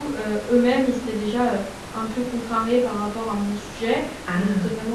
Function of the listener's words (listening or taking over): listening